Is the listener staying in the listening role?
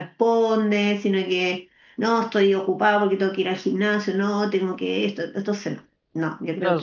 No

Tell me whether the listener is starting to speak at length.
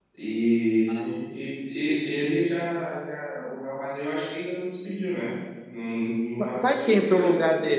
Yes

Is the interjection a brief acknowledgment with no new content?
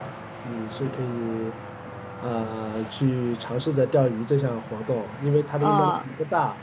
Yes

